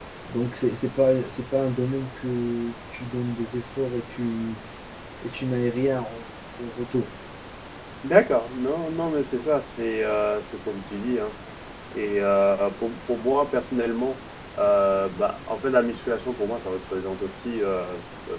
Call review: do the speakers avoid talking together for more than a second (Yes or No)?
Yes